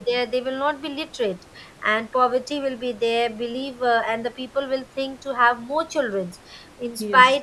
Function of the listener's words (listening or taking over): listening